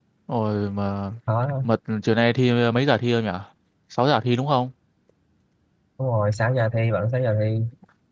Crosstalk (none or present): none